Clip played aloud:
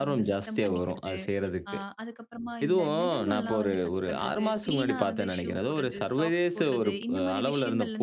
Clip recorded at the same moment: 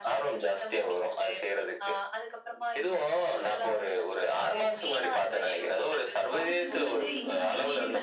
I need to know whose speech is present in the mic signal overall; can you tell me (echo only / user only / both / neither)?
both